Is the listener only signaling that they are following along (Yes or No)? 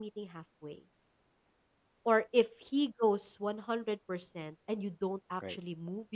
Yes